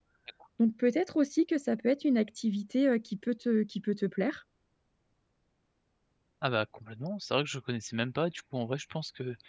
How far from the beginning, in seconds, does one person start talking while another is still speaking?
none

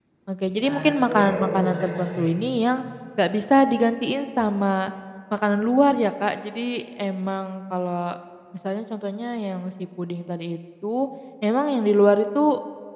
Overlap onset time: 1 s

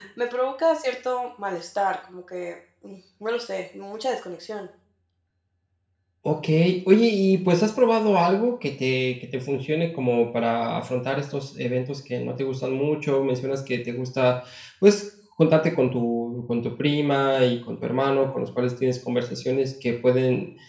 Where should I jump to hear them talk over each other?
none

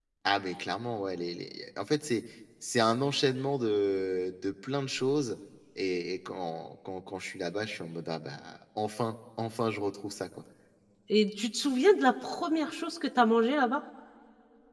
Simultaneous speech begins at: none

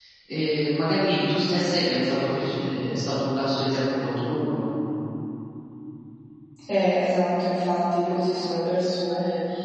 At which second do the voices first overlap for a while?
none

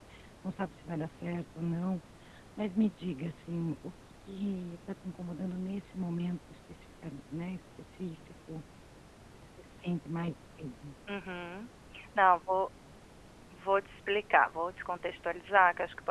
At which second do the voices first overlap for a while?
none

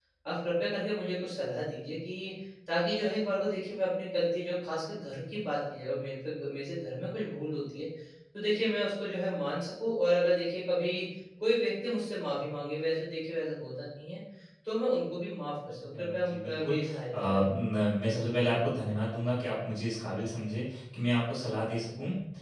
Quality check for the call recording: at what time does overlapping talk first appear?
16 s

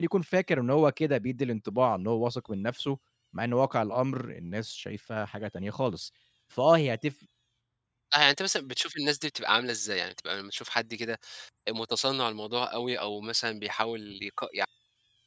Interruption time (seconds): none

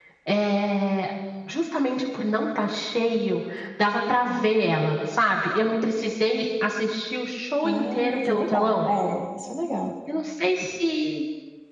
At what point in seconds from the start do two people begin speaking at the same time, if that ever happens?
8 s

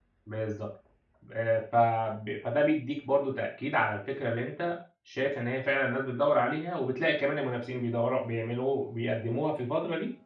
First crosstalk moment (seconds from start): none

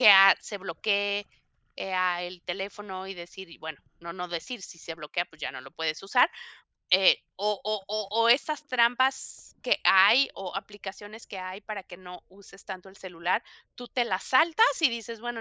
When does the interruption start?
none

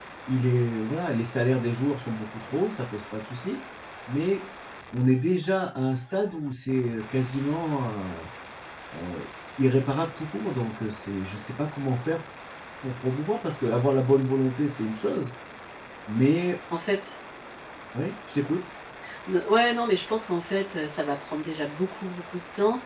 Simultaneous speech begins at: none

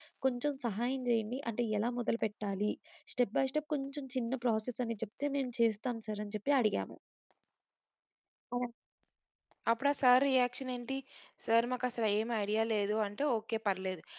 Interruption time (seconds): none

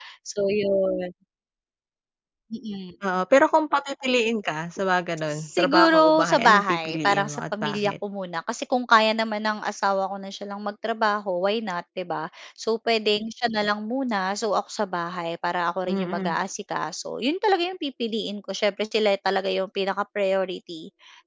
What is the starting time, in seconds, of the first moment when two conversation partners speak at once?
5 s

